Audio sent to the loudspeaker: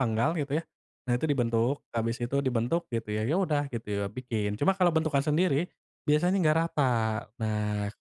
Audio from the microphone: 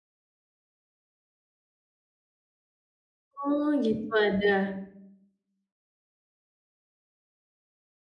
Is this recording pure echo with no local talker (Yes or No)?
No